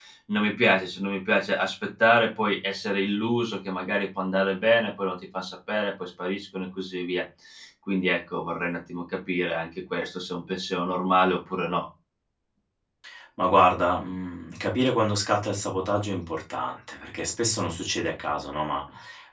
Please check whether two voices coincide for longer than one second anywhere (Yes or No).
No